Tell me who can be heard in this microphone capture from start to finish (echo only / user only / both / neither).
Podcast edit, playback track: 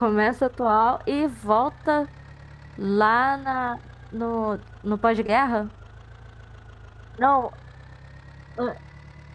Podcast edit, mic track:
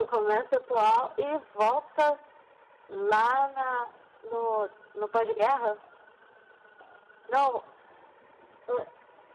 echo only